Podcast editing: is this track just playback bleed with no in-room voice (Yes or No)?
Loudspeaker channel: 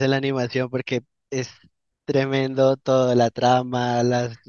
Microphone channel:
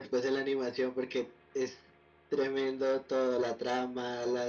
Yes